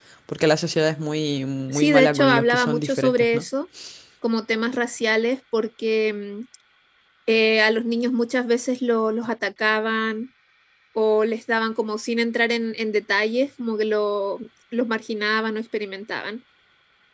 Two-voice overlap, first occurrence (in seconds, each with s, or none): 1.7 s